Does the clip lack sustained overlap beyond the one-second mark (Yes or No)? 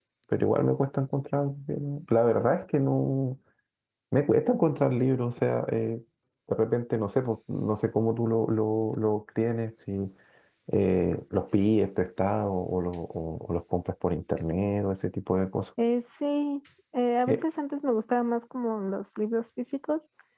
Yes